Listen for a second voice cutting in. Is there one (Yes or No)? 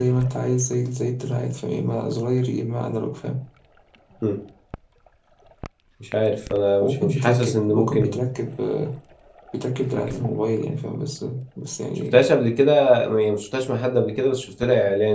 Yes